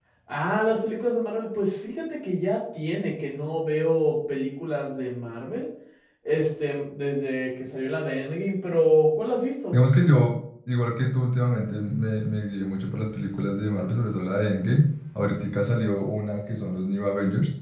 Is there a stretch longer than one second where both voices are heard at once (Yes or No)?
No